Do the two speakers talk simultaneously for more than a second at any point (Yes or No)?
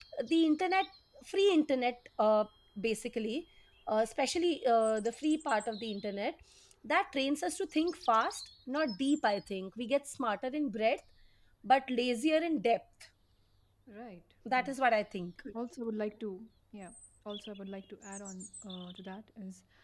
No